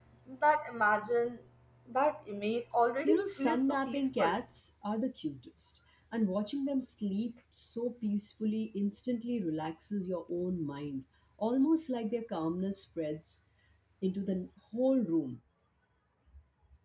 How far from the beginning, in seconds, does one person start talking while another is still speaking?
3.0 s

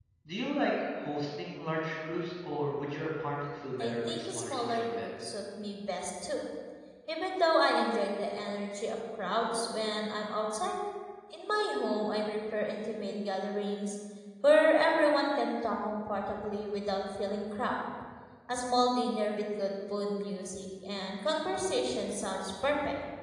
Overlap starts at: 3.8 s

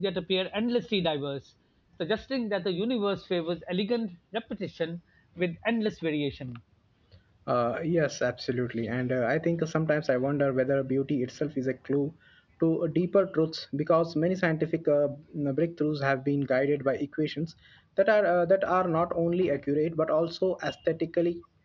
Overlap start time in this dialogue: none

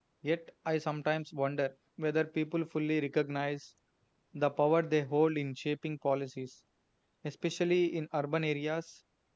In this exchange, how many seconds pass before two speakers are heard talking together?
none

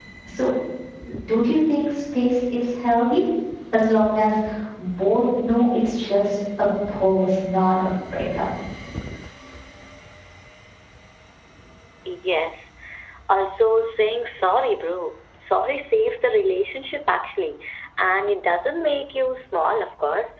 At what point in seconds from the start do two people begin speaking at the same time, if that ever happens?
none

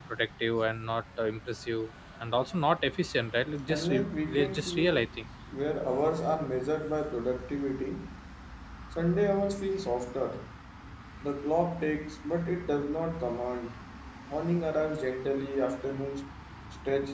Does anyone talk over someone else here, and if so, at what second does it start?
3.7 s

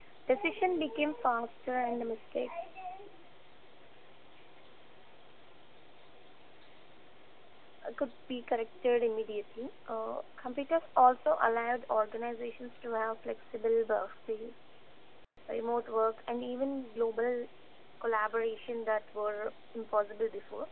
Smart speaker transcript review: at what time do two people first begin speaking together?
none

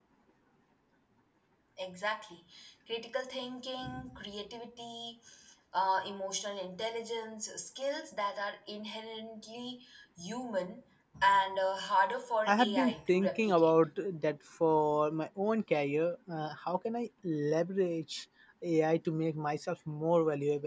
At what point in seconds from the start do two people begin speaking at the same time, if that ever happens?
12.5 s

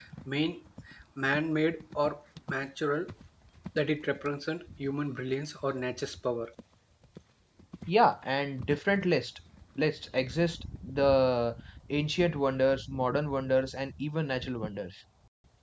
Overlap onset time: none

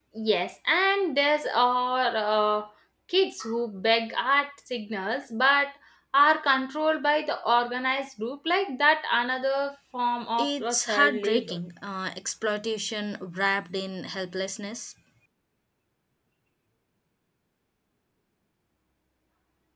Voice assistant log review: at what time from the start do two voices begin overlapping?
10.4 s

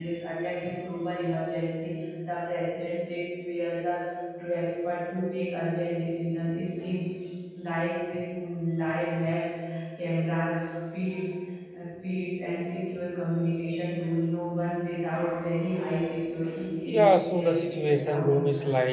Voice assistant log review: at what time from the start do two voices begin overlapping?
16.9 s

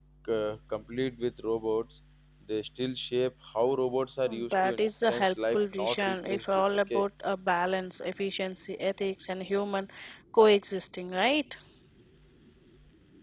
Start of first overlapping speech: 4.3 s

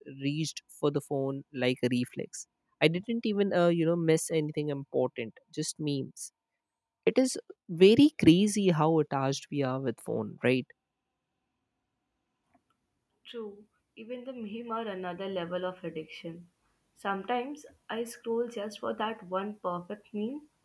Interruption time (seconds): none

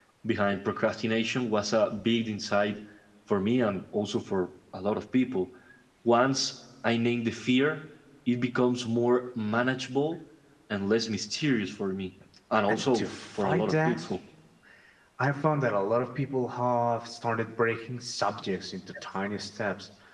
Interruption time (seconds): 12.7 s

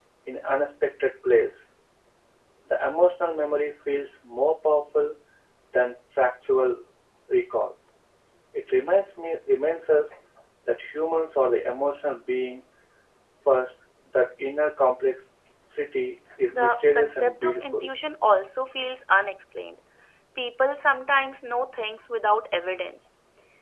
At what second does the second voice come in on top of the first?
16.5 s

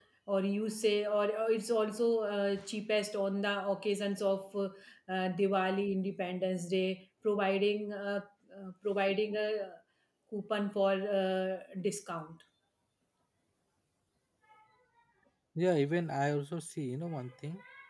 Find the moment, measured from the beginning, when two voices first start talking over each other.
none

